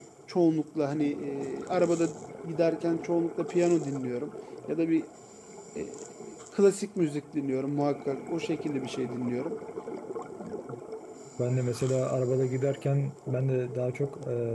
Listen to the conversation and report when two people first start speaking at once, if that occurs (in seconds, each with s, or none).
none